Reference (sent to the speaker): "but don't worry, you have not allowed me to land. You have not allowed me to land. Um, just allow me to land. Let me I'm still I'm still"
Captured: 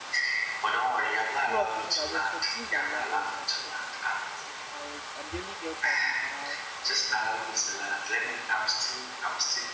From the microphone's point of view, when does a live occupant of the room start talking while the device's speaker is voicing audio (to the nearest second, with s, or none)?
1 s